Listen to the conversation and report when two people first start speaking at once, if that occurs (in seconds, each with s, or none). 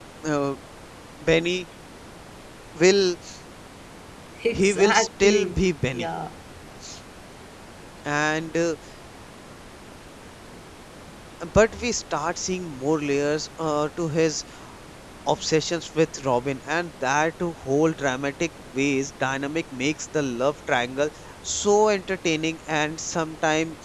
4.5 s